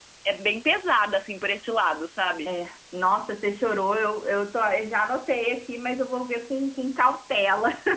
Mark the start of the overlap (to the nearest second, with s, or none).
none